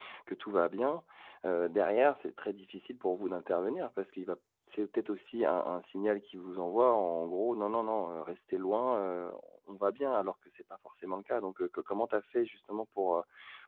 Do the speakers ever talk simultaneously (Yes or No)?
No